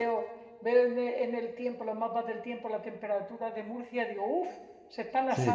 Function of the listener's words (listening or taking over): taking over